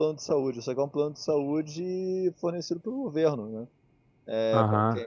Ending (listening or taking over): taking over